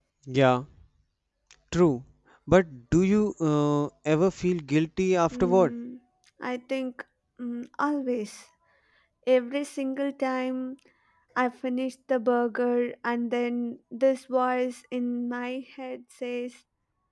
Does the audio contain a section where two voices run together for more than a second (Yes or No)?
No